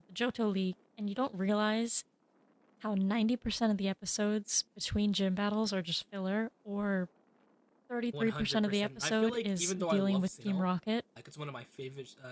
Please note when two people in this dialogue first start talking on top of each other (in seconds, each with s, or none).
8.2 s